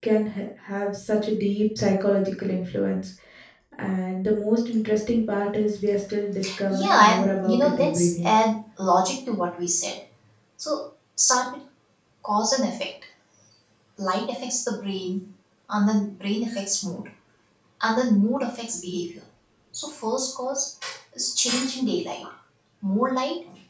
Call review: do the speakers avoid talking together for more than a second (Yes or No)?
No